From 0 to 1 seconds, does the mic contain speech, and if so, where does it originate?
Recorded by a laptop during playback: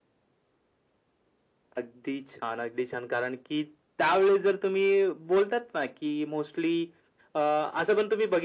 neither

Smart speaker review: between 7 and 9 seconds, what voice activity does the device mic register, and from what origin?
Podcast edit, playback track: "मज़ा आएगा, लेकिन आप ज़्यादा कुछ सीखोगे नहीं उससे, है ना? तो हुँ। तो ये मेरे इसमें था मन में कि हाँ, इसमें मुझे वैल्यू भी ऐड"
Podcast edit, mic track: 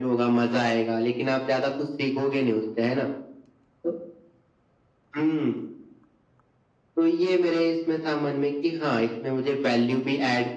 echo only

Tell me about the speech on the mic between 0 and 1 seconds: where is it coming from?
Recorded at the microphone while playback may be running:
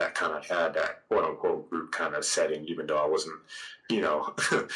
echo only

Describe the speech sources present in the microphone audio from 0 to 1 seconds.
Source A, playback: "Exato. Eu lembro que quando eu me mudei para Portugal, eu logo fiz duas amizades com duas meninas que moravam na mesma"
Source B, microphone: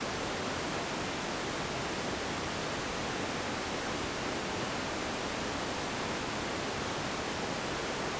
neither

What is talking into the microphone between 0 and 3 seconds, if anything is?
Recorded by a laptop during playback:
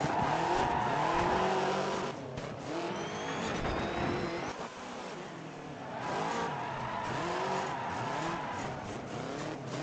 neither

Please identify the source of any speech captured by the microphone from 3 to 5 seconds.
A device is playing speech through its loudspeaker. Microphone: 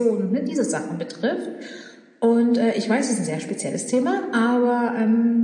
echo only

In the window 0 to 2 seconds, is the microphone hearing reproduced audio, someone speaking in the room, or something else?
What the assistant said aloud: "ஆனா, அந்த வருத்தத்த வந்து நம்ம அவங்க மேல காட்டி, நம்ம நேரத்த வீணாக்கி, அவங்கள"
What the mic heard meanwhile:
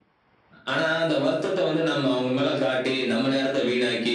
echo only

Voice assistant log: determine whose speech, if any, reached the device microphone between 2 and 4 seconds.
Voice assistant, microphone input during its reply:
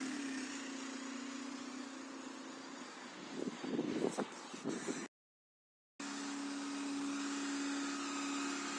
neither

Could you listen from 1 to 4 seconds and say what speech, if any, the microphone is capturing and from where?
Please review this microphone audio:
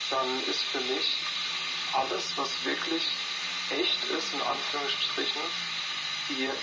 echo only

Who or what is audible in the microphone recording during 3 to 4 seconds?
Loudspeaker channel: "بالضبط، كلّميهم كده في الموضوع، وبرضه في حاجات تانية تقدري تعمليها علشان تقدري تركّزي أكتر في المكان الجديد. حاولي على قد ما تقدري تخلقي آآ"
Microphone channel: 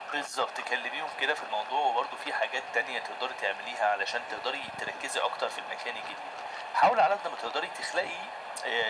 echo only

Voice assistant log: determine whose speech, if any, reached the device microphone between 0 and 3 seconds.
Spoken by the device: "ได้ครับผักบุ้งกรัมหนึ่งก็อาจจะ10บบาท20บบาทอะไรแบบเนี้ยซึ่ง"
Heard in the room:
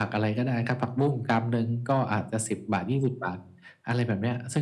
echo only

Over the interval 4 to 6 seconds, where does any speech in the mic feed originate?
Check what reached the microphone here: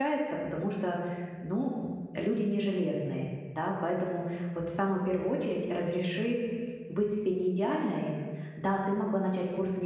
user only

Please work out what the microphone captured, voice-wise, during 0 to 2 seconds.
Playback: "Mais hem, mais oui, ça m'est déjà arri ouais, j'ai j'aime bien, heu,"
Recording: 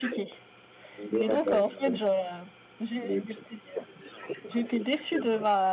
both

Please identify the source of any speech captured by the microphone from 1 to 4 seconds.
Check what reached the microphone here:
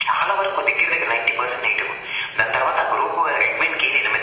echo only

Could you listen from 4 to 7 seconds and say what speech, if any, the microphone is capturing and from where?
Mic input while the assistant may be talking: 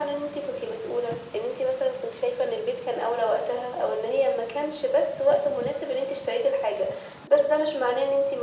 echo only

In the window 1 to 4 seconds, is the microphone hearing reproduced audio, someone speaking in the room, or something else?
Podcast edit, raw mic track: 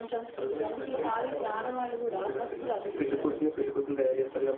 both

